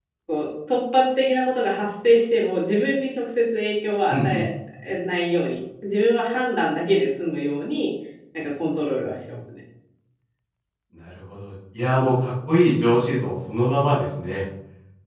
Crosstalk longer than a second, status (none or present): none